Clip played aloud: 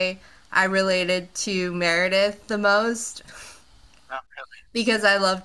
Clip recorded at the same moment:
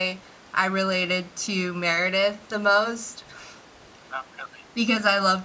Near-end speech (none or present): none